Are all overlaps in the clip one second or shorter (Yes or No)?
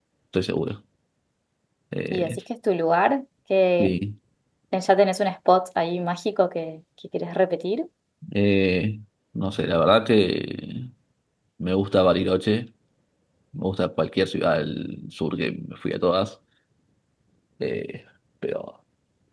Yes